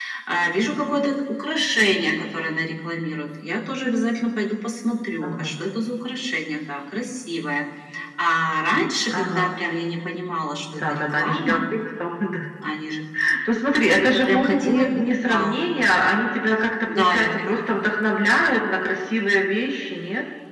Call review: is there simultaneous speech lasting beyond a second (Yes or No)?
Yes